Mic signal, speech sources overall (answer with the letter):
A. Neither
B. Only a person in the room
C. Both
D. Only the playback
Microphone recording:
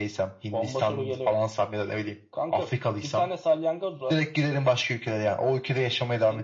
D